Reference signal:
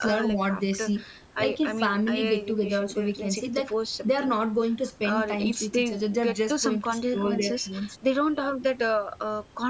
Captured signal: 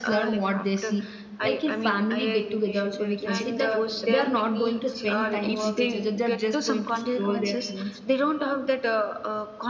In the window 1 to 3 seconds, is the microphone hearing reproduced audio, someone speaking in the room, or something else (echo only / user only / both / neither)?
echo only